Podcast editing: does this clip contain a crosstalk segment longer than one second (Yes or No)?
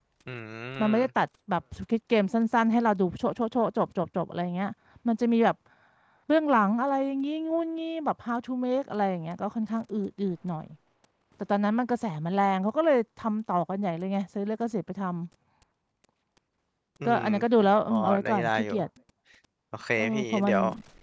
Yes